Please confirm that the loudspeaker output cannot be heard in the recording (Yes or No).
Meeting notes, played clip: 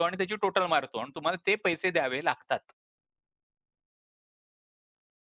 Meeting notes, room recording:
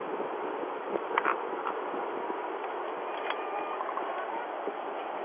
Yes